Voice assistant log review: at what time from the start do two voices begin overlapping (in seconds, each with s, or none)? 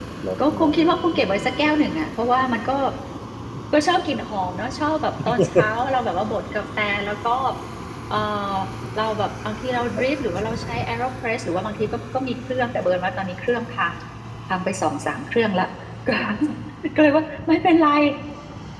0.5 s